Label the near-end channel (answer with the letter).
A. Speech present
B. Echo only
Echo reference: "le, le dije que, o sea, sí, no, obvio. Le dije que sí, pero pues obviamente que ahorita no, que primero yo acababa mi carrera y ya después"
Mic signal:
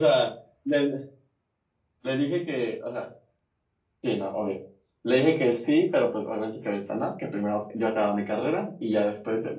B